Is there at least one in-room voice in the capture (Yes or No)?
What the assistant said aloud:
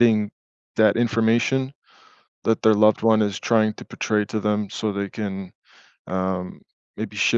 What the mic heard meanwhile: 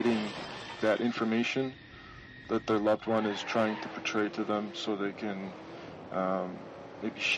No